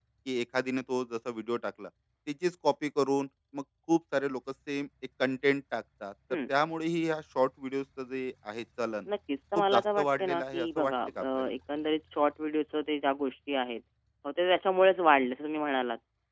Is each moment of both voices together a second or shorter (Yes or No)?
No